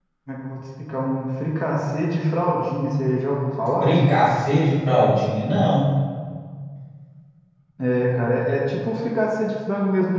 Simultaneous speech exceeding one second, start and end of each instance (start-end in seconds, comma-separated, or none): none